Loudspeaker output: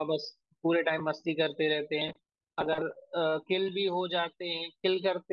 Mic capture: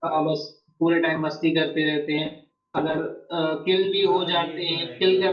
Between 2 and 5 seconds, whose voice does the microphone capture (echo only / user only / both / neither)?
both